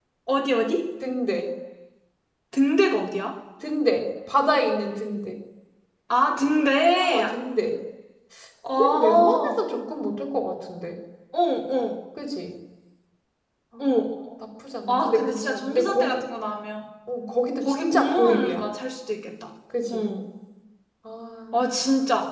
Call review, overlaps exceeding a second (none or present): present